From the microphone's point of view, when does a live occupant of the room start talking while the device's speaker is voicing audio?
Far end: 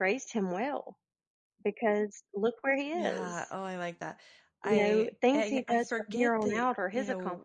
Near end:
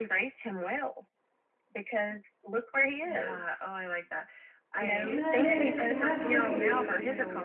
5.0 s

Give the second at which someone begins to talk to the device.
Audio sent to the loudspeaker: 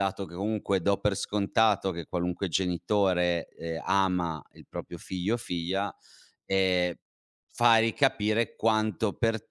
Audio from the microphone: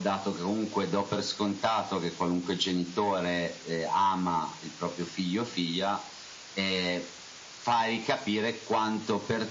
none

